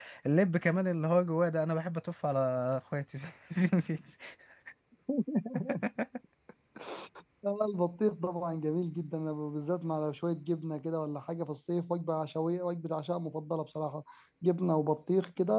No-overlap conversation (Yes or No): Yes